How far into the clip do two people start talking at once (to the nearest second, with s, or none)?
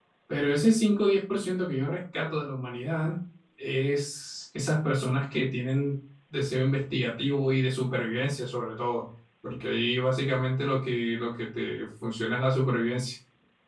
none